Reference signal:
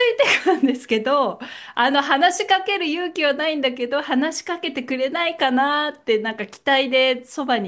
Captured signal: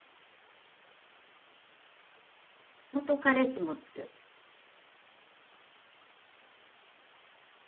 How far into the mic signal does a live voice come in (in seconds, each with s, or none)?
2.9 s